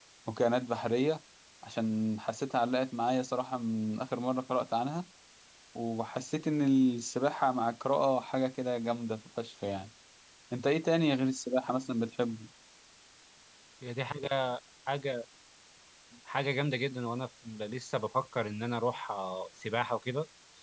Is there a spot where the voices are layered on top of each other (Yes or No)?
No